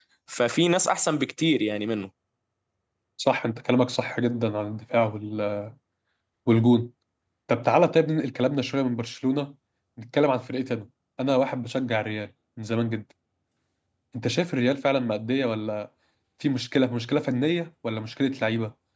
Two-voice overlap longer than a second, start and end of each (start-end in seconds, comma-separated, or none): none